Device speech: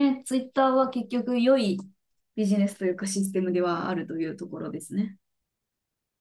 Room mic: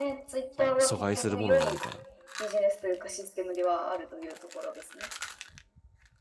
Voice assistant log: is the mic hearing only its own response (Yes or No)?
No